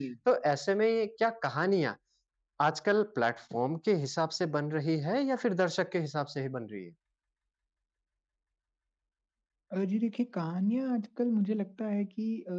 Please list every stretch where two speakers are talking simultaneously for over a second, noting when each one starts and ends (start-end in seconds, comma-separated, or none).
none